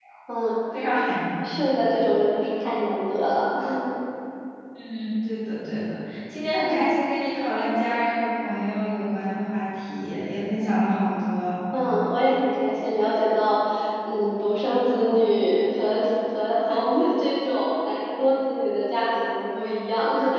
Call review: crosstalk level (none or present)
none